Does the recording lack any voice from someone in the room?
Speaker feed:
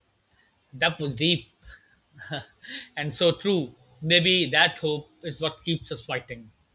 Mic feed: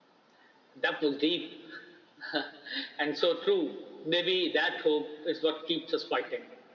Yes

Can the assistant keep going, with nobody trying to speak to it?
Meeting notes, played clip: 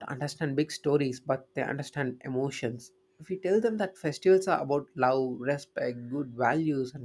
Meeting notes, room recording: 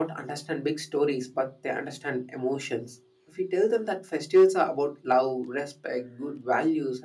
Yes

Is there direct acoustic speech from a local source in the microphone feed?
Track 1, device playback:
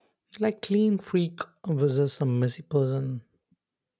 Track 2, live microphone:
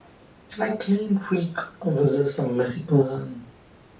No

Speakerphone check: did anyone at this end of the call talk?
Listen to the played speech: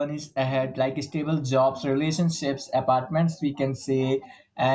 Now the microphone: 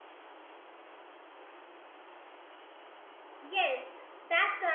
Yes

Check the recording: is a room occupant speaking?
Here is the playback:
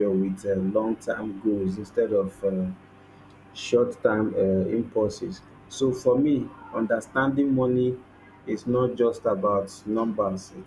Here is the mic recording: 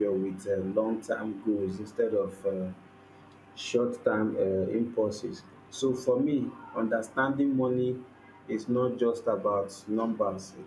No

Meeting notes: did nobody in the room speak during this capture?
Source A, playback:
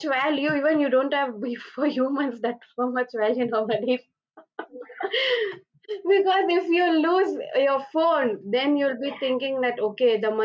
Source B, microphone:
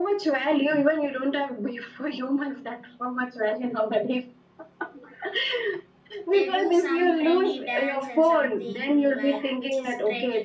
No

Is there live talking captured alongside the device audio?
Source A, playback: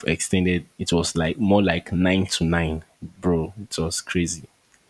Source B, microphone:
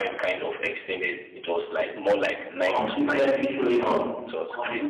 Yes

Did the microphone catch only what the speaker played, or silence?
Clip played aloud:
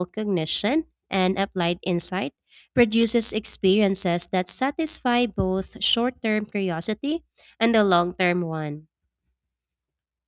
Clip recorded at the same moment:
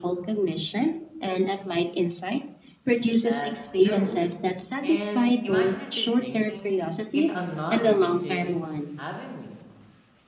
No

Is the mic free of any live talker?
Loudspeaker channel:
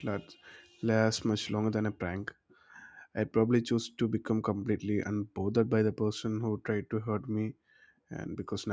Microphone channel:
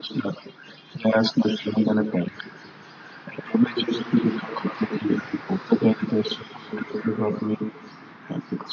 Yes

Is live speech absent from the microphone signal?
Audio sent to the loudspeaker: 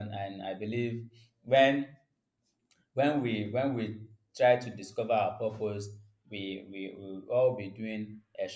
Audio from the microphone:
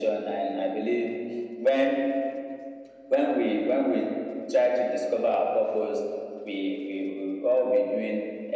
Yes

